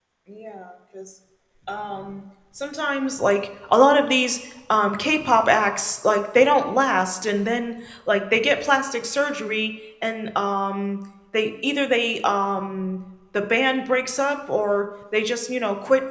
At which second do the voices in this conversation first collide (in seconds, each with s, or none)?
none